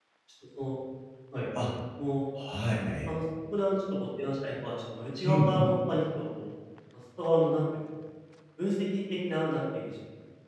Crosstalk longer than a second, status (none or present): none